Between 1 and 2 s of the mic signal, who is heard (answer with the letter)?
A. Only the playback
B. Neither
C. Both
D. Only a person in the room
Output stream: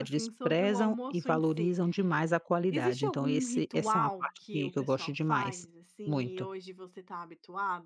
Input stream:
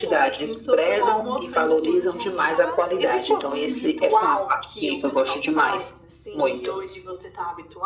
C